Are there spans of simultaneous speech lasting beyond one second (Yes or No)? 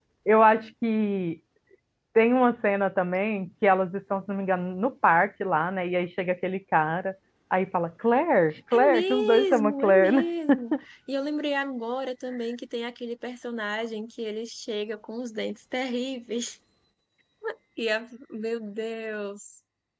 Yes